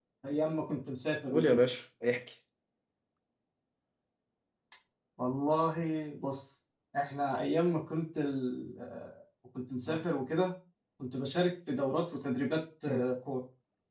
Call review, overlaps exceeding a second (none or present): none